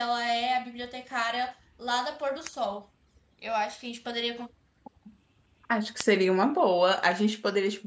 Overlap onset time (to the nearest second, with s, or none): none